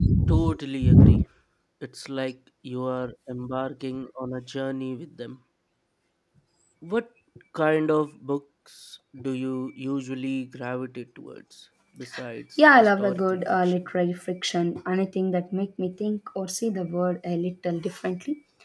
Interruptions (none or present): present